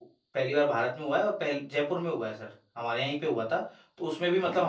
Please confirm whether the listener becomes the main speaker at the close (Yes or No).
No